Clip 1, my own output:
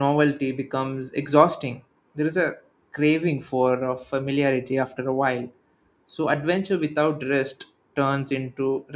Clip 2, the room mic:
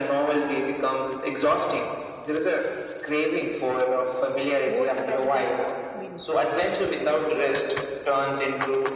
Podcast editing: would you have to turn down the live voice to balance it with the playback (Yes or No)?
No